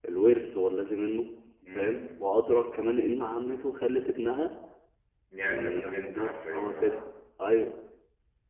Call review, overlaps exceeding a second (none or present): present